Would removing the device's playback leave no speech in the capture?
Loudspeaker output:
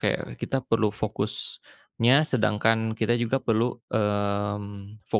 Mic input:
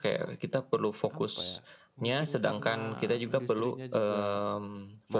No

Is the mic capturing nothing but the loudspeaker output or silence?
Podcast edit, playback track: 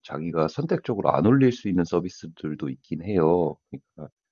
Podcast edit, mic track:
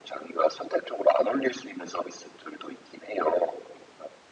Yes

